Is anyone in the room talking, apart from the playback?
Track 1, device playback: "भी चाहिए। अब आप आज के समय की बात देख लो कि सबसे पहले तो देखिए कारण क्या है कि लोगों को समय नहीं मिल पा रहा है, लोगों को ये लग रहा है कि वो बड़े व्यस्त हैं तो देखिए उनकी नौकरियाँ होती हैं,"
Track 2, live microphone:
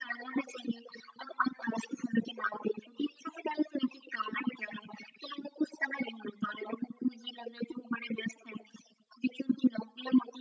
No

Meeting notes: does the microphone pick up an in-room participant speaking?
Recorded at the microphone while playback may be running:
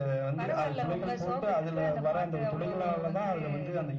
No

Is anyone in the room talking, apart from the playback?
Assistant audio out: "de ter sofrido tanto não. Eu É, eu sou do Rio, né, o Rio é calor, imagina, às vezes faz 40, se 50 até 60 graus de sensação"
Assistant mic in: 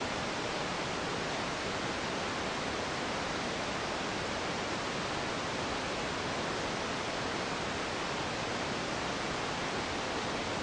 No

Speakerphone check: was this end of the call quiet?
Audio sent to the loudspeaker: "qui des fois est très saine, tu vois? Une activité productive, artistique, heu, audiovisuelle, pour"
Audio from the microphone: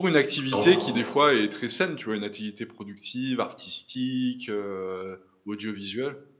No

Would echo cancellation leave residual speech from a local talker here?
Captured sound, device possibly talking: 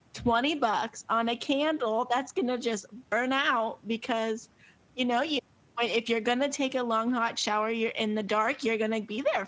Yes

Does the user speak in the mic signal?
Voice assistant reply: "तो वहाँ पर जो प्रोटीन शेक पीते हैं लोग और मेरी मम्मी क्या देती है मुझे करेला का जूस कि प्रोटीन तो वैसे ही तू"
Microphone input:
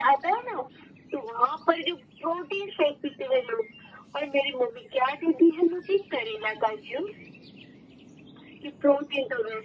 No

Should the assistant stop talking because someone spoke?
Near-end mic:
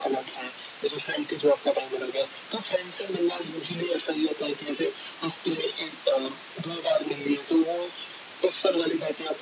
No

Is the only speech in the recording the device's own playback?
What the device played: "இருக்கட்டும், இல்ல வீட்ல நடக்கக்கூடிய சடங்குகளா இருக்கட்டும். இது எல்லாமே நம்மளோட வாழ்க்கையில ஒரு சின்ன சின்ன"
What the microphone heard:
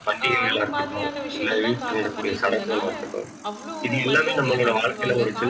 No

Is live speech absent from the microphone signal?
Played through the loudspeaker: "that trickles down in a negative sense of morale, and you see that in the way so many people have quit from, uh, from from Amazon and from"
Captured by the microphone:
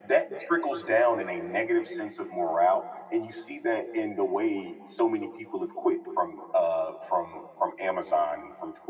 Yes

